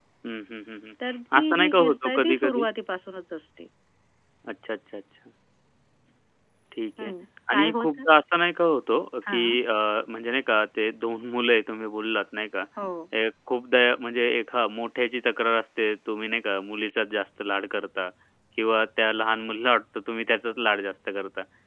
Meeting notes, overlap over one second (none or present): present